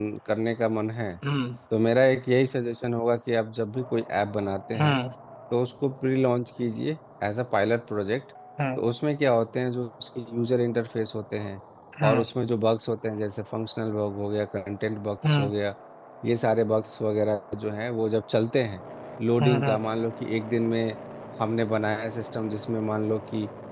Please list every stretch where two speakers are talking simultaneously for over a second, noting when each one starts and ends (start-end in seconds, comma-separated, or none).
none